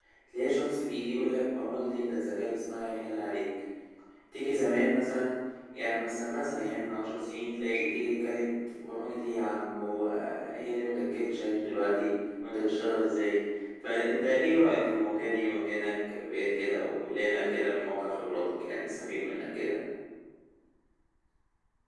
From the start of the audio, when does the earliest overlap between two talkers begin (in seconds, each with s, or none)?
none